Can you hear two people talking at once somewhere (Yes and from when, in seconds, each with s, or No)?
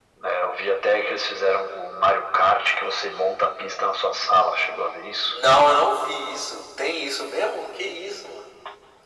No